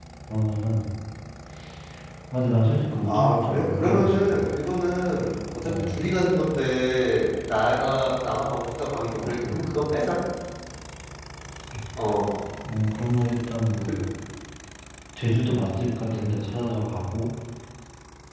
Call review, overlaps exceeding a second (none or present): present